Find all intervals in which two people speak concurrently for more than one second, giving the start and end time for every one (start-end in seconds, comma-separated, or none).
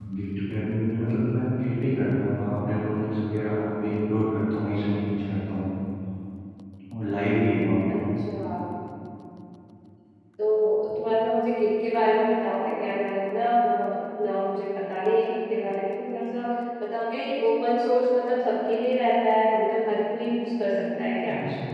none